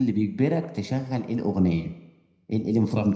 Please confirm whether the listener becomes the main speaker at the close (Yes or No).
No